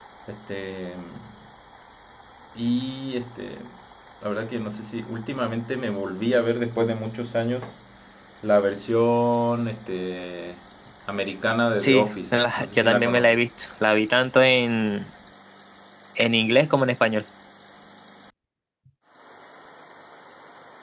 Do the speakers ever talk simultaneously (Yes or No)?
Yes